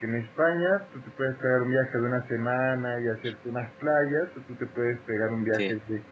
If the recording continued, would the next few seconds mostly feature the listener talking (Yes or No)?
No